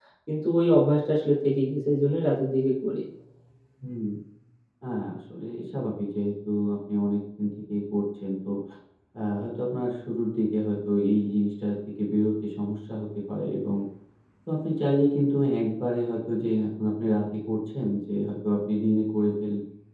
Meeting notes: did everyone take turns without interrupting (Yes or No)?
Yes